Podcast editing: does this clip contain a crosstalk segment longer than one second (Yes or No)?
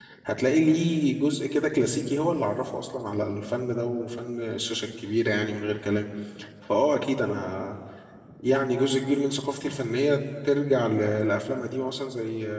No